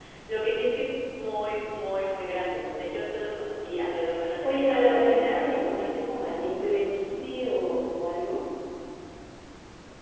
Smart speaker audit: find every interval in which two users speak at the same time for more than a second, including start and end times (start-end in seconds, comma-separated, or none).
4.4-5.9